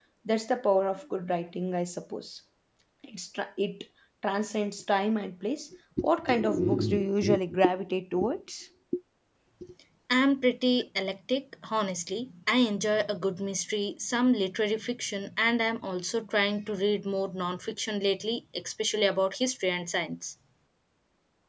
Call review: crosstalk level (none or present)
none